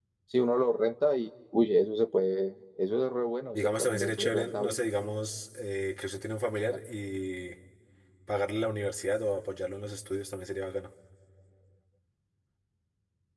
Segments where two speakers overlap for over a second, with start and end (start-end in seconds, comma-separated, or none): 3.5-4.8